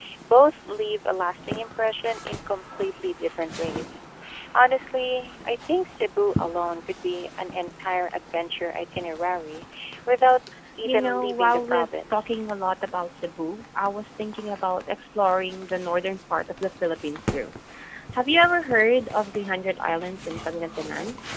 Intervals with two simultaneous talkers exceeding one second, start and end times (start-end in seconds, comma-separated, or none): 10.8-12.3